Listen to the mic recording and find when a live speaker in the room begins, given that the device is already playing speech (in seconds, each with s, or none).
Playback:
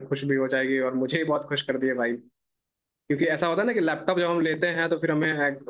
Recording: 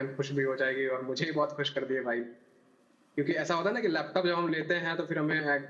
none